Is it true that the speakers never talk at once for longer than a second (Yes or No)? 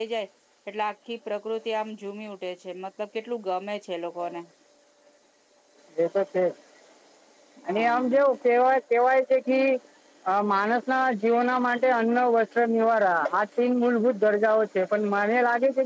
Yes